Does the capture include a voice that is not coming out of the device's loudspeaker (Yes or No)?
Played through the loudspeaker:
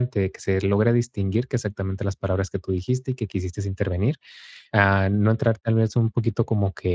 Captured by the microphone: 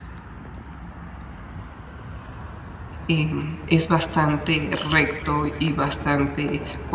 Yes